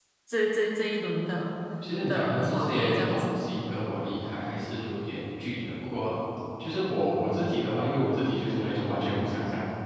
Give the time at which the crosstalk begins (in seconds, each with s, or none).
2.1 s